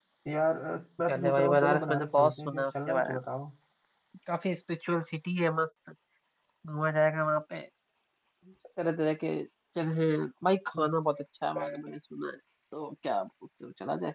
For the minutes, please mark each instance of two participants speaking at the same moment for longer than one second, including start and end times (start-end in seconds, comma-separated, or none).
1.1-3.2